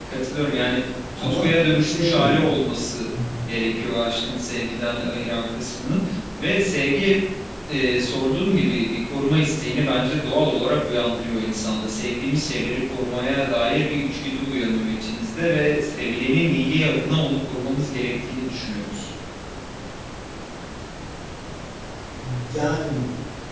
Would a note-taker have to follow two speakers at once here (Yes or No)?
Yes